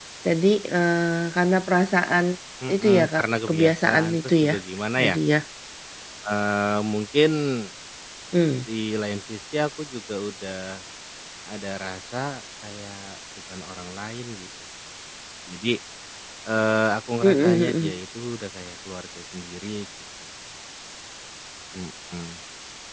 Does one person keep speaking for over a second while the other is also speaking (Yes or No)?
Yes